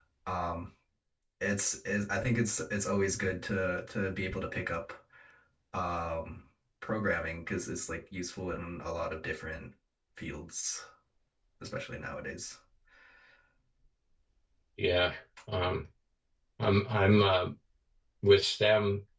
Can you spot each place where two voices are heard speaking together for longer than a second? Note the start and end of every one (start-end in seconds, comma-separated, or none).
none